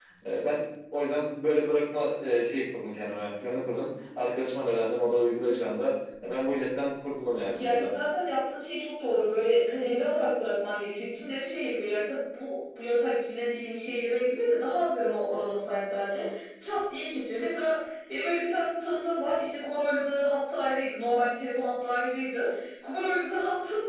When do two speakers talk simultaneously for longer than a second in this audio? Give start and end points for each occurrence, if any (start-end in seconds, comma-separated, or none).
none